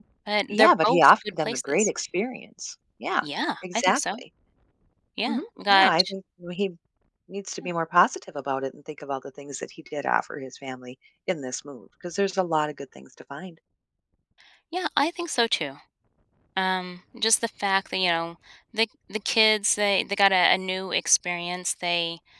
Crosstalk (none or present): present